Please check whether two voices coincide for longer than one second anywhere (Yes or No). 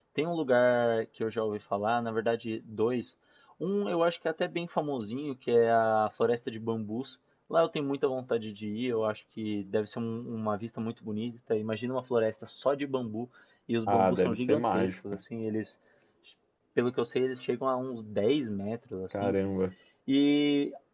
Yes